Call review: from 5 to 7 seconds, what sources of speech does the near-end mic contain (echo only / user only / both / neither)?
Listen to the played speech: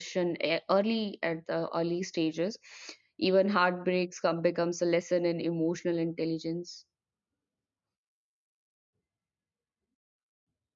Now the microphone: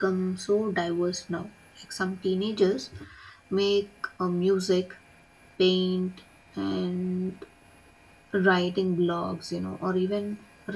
user only